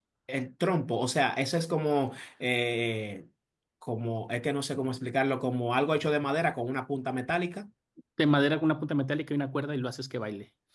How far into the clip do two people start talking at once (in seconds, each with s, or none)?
none